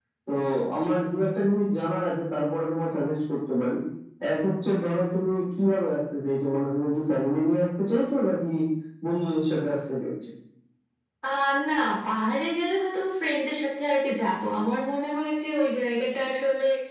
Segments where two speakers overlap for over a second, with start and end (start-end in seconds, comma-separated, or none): none